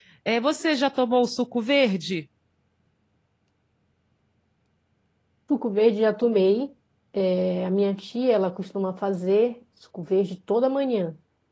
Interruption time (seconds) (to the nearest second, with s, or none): none